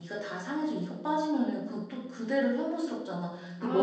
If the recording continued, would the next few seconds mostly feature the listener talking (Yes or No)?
No